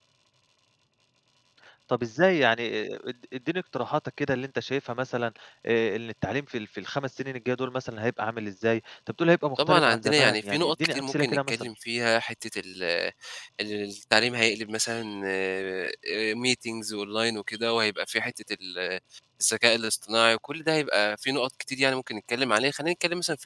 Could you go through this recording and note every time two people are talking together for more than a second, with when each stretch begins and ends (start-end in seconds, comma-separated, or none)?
9.6-11.7